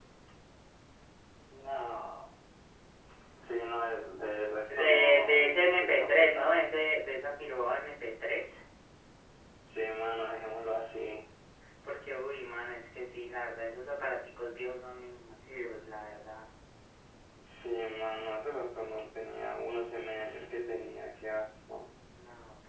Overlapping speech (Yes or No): Yes